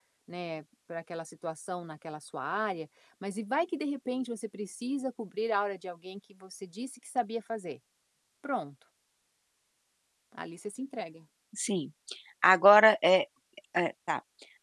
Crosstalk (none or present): none